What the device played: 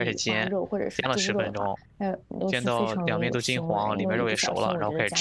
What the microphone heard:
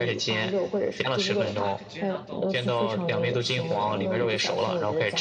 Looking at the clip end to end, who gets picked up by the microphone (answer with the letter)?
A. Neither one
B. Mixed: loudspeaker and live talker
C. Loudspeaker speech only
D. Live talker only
B